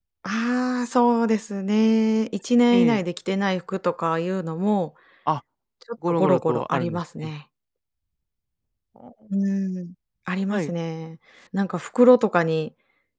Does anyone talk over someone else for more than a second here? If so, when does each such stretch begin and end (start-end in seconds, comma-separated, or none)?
6.1-7.3